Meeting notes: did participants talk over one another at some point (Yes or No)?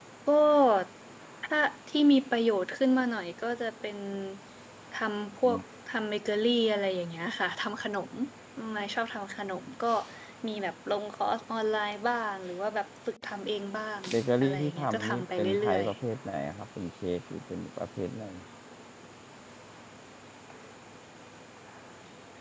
Yes